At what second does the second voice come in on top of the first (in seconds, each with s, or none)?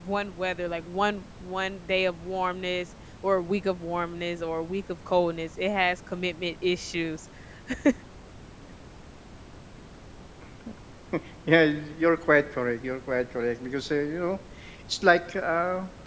none